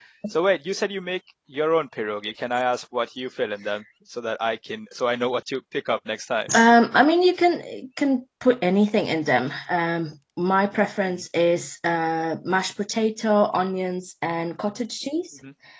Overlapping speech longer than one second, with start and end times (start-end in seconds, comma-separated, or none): none